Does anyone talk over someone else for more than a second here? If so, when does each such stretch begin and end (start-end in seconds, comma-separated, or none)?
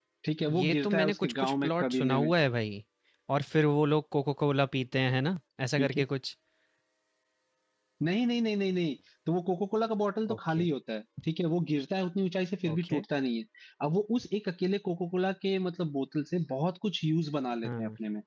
0.6-2.3